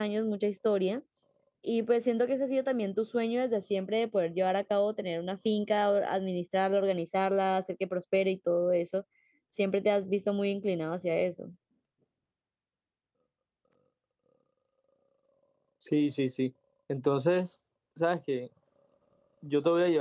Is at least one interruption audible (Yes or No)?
No